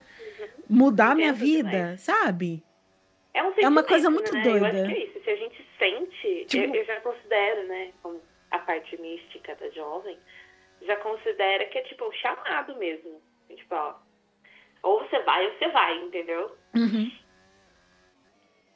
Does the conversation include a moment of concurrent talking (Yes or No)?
Yes